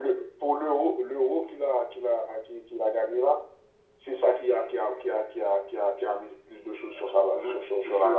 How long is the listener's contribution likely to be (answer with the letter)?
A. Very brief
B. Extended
B